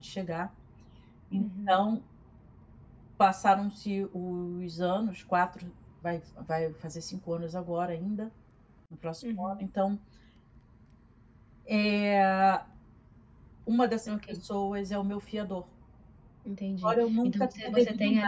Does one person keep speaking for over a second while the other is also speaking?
Yes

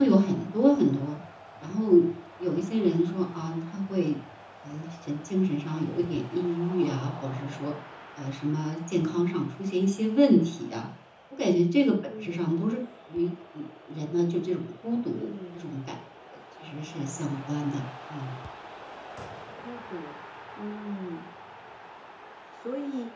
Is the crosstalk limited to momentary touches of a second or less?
Yes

